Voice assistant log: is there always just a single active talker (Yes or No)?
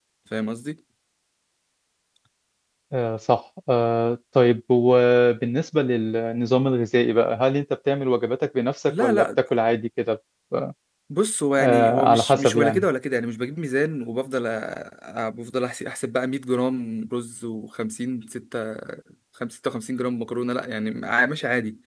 No